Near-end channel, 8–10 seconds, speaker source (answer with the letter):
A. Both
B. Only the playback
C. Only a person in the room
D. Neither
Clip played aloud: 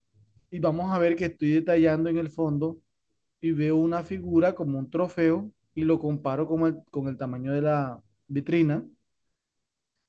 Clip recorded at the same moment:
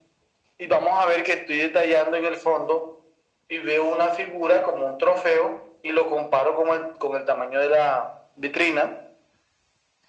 B